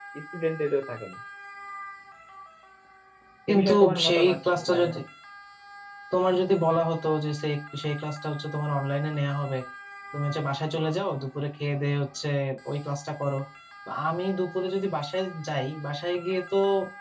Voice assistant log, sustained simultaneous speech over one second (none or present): present